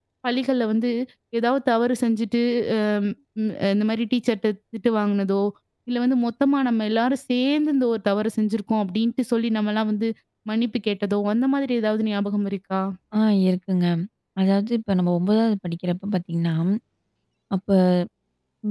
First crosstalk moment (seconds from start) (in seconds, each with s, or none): none